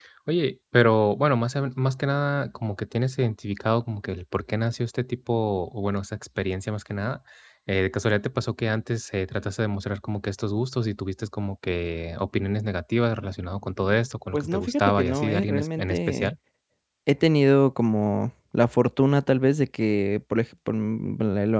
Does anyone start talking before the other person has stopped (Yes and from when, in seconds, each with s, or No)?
Yes, from 14.3 s